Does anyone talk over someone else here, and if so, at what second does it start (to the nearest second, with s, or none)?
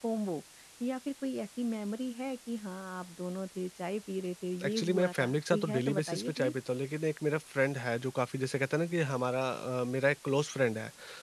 5 s